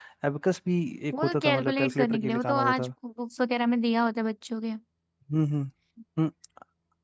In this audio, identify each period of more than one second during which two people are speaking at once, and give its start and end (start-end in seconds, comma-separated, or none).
1.1-2.9